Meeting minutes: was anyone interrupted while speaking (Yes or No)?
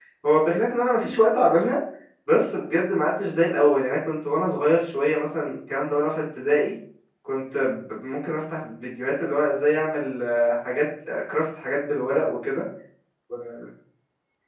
No